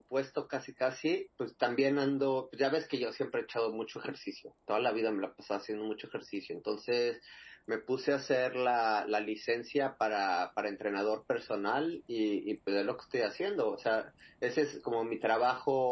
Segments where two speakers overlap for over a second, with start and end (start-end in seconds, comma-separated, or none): none